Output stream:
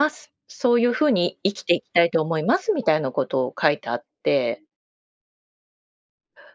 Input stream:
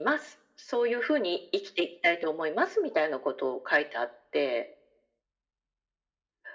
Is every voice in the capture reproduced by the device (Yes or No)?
Yes